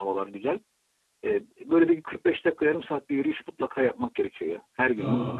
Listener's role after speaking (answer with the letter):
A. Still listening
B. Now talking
B